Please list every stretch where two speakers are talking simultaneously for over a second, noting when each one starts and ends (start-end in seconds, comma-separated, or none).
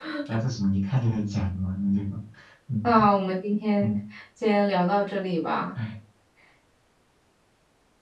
none